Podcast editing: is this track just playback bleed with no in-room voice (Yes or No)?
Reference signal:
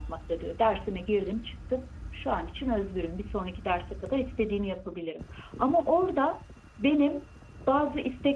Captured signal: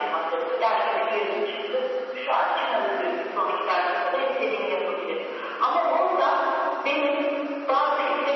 Yes